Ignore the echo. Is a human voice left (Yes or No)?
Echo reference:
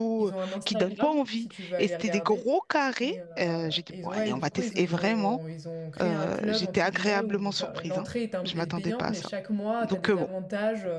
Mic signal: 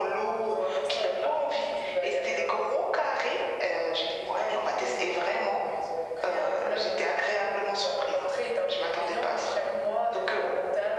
No